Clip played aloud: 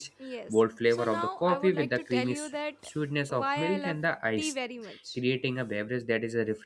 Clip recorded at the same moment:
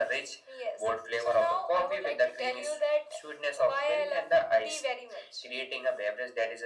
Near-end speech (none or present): none